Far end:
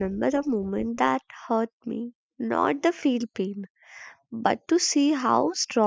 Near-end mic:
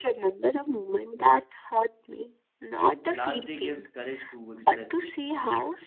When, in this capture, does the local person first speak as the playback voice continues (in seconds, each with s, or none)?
3.1 s